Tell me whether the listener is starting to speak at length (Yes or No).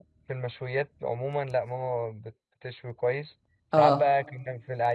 No